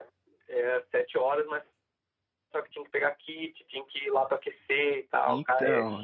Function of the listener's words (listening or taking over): taking over